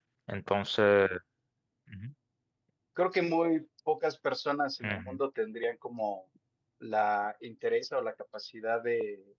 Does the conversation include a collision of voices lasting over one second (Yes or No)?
No